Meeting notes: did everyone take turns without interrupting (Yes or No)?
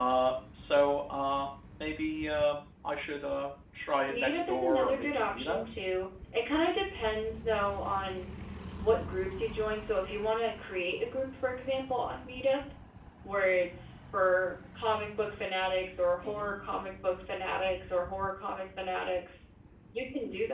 No